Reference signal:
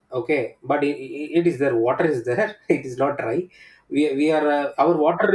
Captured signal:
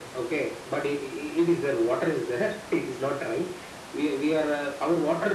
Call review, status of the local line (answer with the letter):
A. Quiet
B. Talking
A